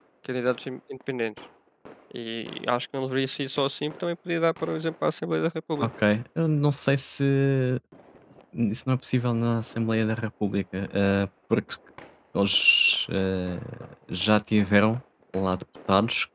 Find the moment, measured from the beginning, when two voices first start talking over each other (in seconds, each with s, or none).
none